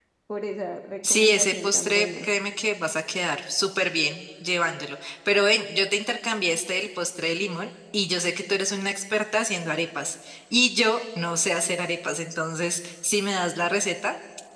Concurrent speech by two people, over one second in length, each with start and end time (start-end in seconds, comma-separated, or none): 1.0-2.3